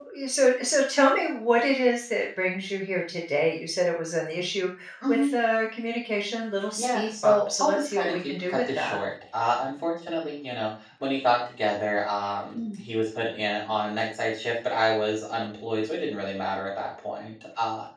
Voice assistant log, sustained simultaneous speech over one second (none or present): present